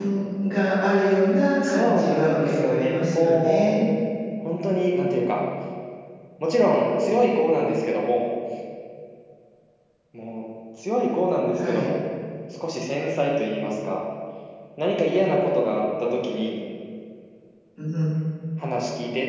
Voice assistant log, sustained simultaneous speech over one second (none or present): present